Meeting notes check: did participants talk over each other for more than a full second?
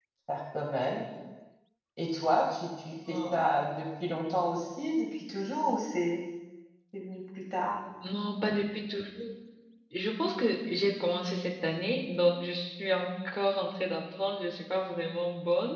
No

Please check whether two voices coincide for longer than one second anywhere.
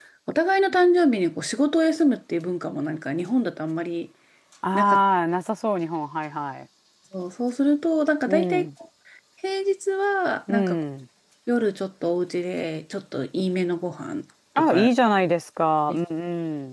No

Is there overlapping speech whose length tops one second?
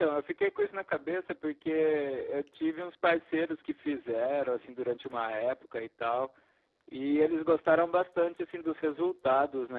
No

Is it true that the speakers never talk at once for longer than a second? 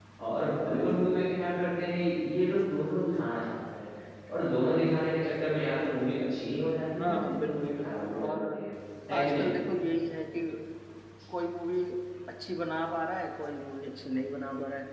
No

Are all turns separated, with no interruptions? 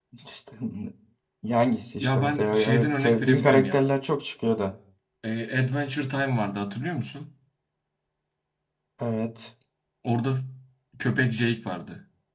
No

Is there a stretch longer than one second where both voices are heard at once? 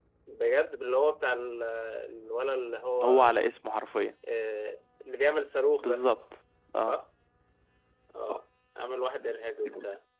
No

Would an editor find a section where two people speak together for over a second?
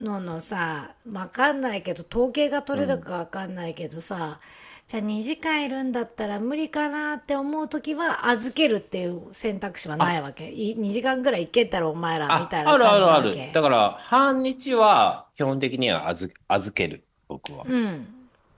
Yes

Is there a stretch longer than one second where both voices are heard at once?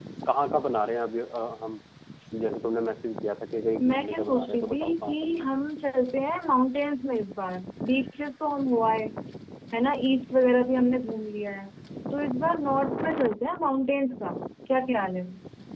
Yes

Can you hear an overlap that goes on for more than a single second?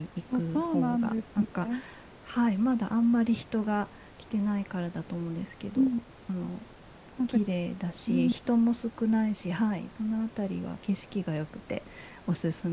Yes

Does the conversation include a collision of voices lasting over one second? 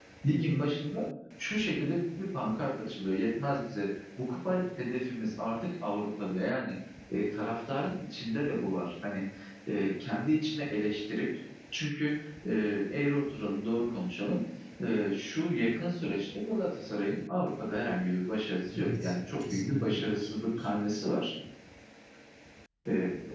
Yes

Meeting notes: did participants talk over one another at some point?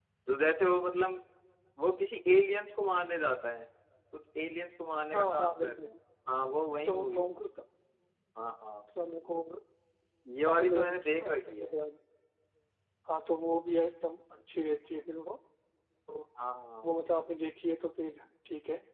Yes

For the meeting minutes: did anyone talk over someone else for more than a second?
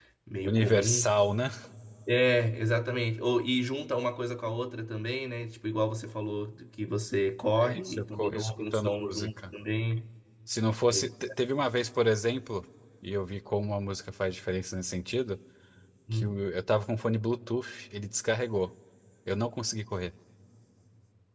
Yes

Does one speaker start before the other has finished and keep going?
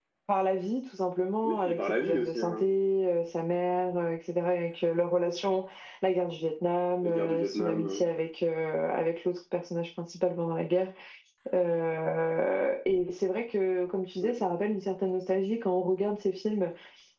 Yes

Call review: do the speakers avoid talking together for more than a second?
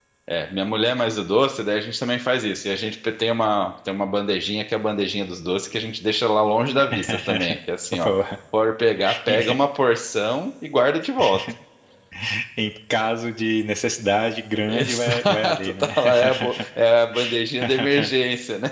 No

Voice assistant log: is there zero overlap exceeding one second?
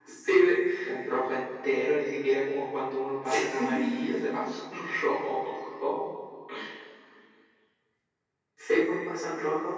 Yes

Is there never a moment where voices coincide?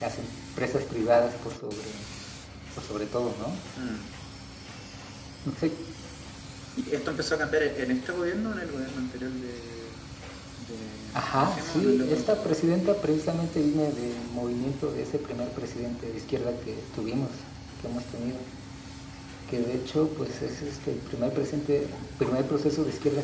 No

